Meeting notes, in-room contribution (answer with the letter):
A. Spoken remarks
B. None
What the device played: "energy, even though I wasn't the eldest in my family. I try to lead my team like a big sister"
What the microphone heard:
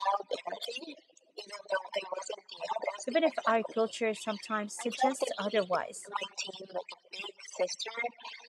A